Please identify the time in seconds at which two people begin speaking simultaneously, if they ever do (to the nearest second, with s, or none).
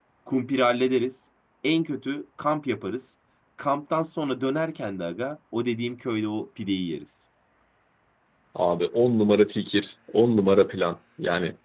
none